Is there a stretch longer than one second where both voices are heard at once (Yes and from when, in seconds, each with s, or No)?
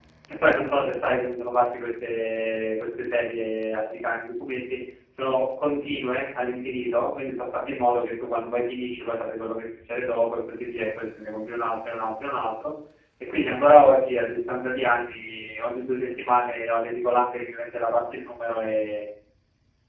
No